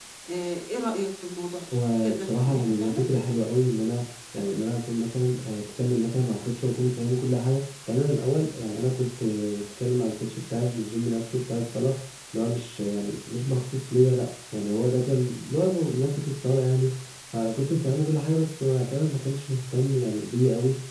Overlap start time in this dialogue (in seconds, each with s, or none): 1.7 s